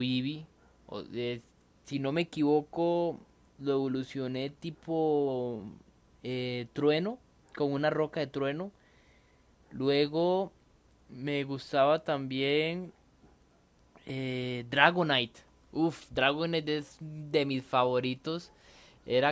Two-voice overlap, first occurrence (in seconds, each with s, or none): none